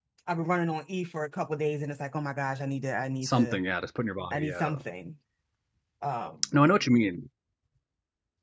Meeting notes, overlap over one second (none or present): none